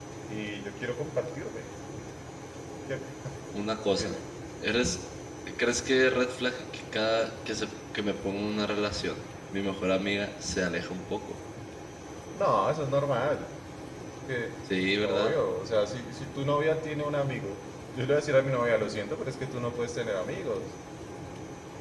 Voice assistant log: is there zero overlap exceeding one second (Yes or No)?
Yes